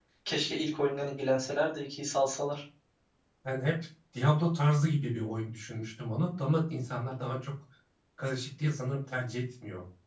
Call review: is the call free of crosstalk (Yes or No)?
Yes